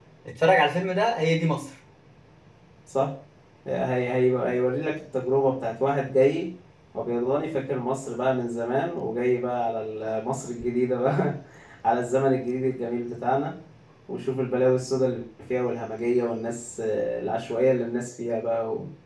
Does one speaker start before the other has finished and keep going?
No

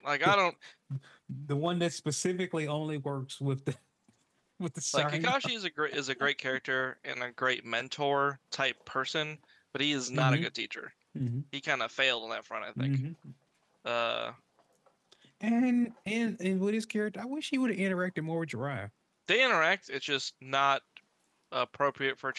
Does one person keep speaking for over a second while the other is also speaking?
No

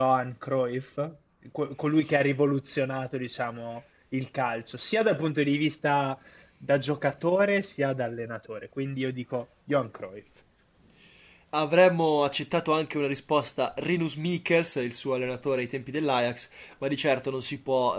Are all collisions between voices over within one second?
Yes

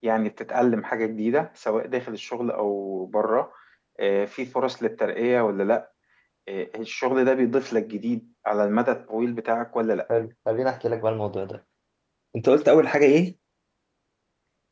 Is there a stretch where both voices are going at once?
No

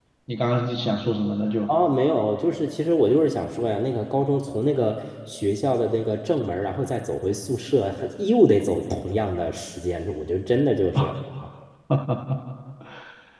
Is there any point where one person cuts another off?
No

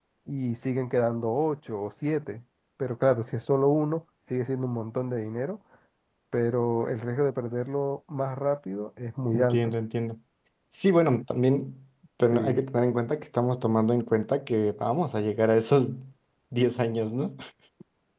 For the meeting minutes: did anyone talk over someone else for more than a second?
No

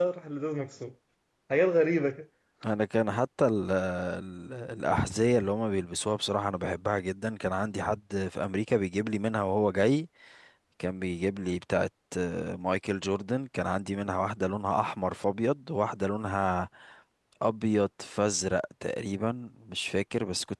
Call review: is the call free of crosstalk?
Yes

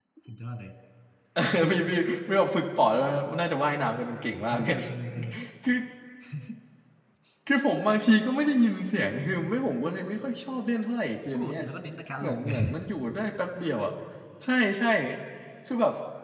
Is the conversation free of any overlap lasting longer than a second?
Yes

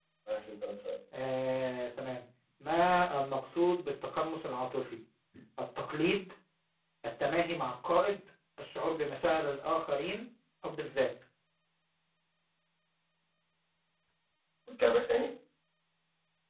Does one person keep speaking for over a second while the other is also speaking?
No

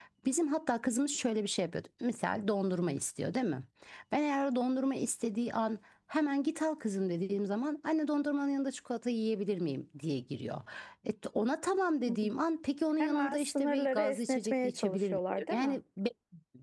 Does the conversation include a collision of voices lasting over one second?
Yes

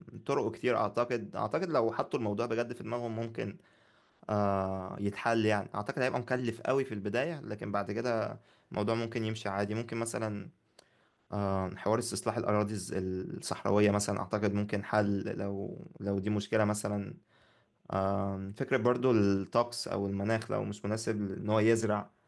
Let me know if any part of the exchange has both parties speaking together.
No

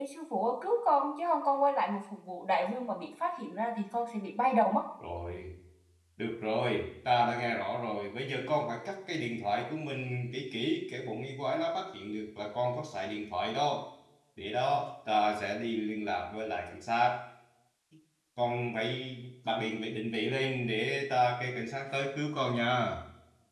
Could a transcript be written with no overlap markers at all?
Yes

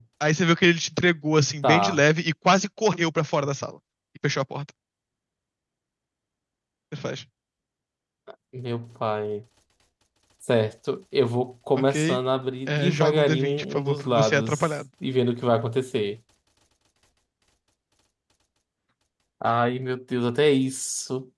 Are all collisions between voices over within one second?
No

